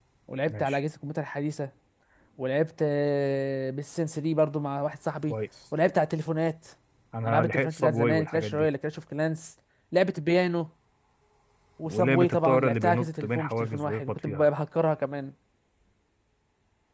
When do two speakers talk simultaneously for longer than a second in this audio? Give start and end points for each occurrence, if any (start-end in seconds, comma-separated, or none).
7.2-8.7, 11.8-14.5